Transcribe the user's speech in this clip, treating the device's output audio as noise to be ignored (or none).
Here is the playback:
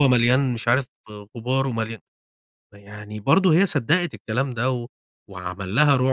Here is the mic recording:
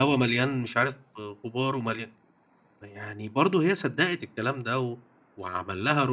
none